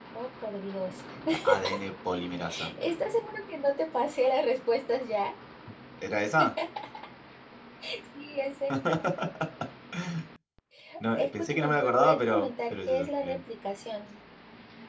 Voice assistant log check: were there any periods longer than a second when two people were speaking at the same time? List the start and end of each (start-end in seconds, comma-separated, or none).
11.2-13.4